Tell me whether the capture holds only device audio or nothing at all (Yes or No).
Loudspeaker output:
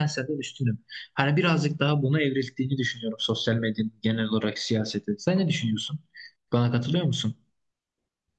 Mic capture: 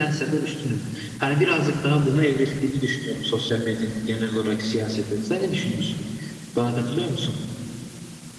Yes